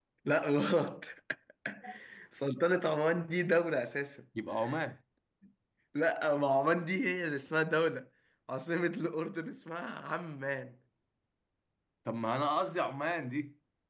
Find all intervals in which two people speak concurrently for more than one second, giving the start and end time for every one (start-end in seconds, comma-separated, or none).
none